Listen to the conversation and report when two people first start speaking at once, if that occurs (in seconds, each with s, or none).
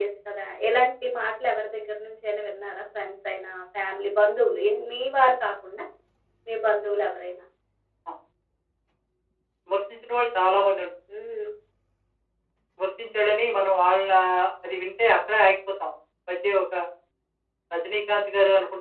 none